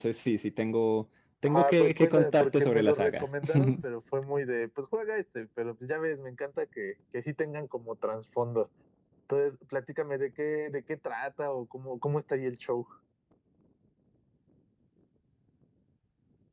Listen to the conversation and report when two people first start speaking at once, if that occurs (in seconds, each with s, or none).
1.4 s